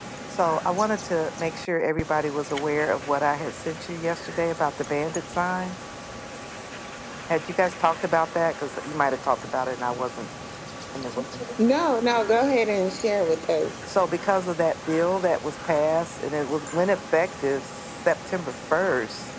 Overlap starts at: none

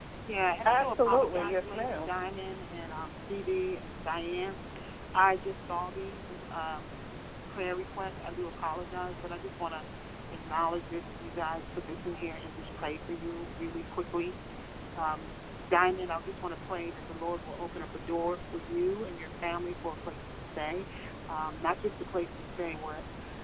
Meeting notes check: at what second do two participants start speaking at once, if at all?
0.7 s

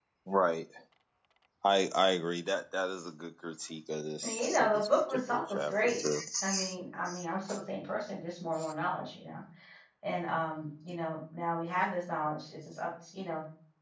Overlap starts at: 4.2 s

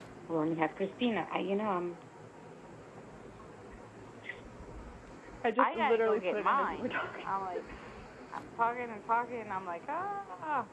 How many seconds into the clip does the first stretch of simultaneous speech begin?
5.6 s

